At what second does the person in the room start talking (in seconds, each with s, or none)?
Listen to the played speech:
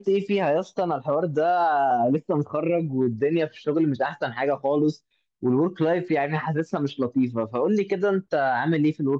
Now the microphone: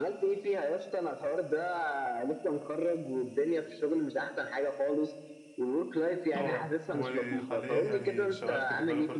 6.4 s